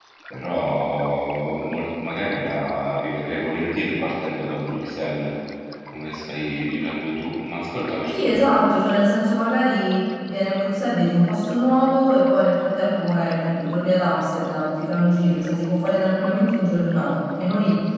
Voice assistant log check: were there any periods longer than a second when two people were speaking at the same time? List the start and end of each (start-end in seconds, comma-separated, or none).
none